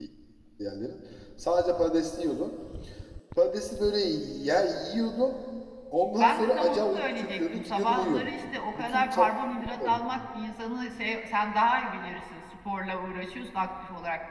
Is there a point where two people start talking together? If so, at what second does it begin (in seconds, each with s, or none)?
6.2 s